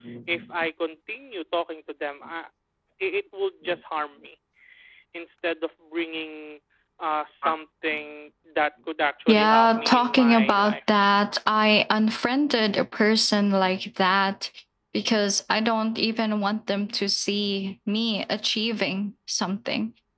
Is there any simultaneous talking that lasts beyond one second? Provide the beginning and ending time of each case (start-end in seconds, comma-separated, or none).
9.3-10.8